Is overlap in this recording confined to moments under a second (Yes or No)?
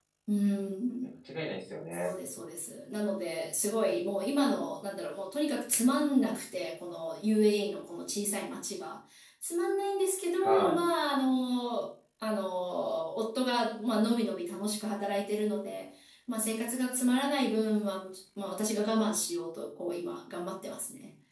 Yes